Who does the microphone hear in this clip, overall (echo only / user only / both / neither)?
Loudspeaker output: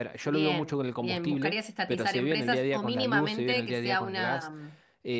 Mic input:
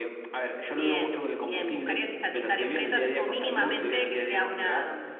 echo only